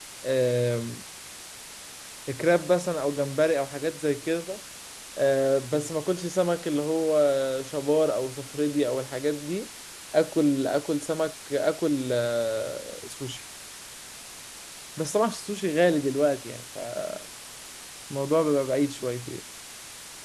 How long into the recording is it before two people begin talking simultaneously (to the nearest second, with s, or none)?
none